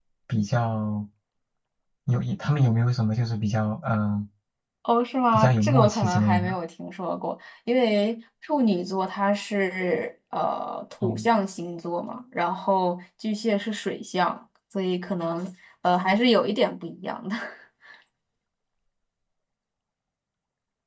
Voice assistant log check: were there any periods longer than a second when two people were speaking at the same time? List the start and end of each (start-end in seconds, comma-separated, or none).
5.3-6.6